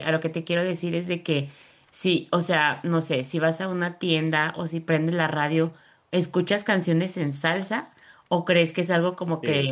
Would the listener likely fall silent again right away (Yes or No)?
Yes